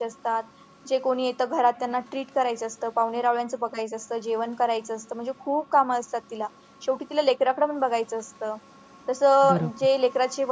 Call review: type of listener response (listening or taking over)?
listening